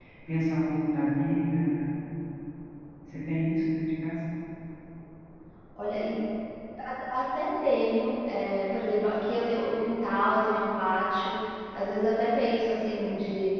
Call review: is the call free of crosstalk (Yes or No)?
Yes